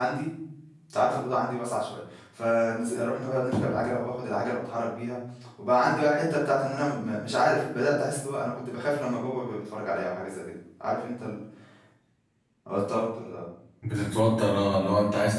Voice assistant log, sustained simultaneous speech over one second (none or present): none